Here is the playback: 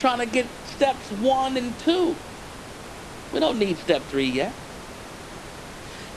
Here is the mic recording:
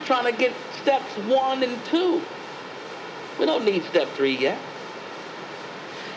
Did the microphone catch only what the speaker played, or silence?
Yes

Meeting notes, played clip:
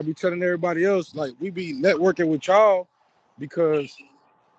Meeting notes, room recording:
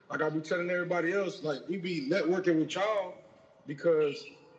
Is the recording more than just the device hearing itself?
No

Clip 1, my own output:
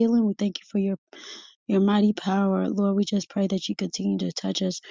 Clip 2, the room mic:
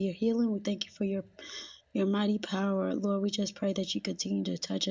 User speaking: No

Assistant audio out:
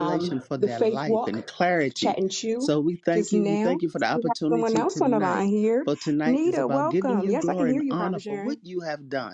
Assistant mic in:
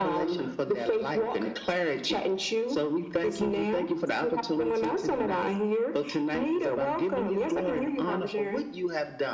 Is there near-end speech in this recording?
No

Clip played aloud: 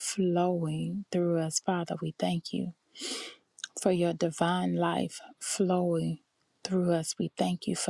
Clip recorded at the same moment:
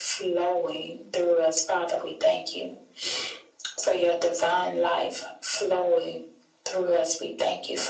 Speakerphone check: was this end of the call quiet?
Yes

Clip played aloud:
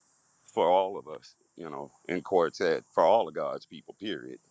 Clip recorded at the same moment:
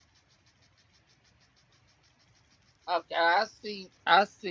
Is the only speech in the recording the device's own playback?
No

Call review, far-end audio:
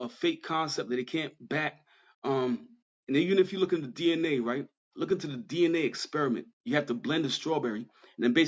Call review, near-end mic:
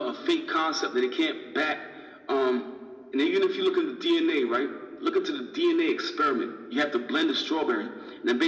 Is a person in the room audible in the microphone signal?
No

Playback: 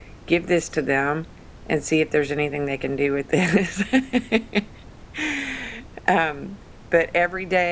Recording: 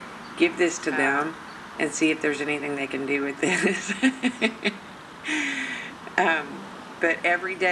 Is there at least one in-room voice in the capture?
Yes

